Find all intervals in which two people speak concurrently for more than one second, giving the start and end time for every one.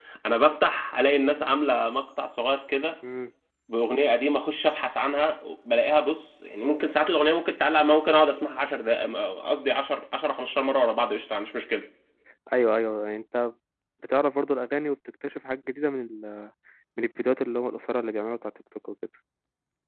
none

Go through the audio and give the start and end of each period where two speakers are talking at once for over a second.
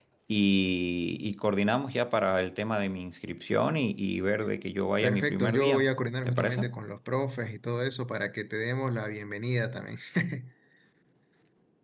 5.0-6.6

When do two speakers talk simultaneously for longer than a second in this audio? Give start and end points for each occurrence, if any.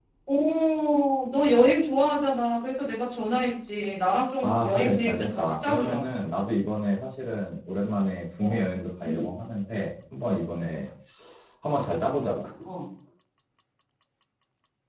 4.4-6.1

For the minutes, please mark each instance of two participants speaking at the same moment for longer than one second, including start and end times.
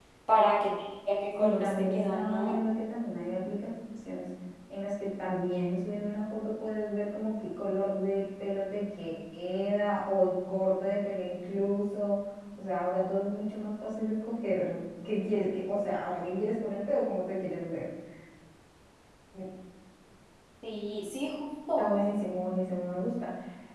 1.4-2.6

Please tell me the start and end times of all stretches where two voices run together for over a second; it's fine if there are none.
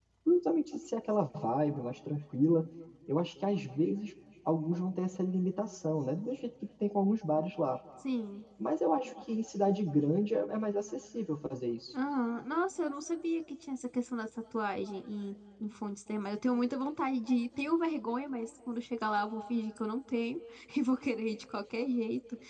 none

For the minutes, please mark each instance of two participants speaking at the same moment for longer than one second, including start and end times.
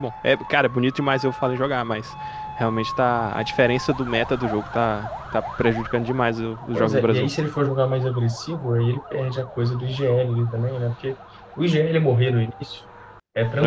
none

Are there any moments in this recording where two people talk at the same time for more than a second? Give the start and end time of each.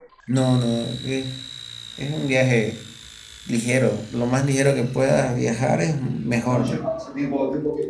none

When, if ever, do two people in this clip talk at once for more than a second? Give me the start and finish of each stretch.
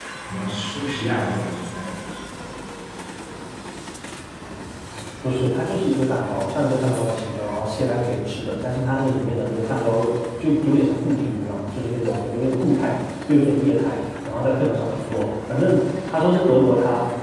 none

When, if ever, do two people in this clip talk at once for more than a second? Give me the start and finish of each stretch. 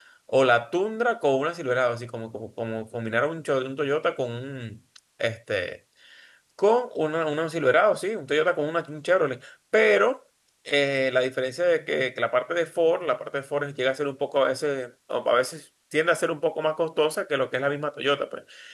none

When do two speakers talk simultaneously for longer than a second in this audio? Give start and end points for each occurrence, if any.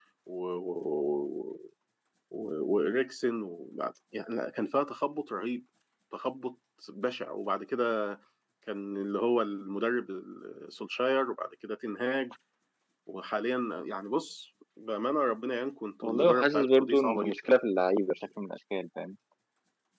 16.0-17.3

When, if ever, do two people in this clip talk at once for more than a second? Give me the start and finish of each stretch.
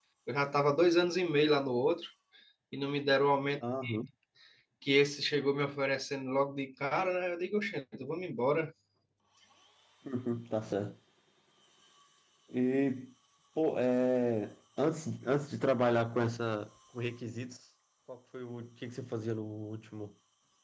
none

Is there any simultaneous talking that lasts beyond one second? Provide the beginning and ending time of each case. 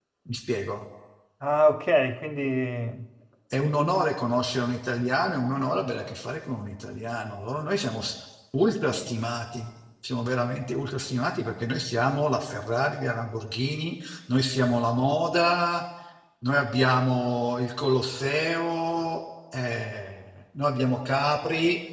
none

